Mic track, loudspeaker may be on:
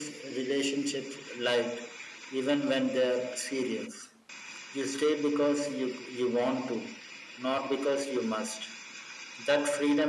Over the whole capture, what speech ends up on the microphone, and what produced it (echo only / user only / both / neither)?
echo only